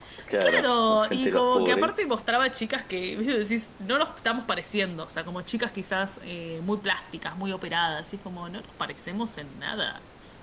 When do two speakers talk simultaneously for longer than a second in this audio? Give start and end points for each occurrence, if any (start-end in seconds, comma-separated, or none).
0.6-1.9